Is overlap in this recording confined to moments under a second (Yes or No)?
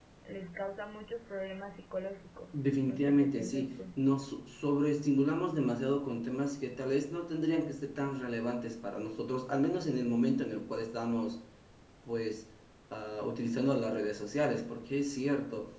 No